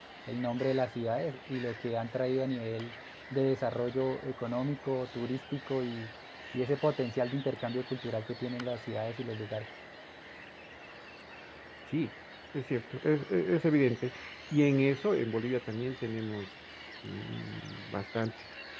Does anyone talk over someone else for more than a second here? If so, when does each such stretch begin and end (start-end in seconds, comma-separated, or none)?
none